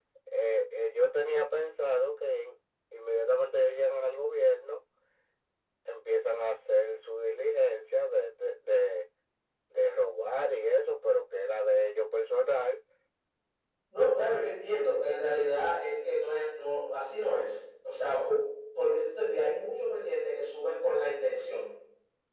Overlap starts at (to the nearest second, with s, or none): none